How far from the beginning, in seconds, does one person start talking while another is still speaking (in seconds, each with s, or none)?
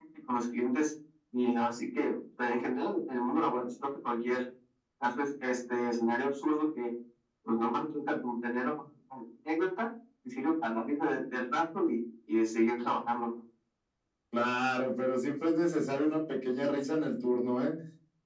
none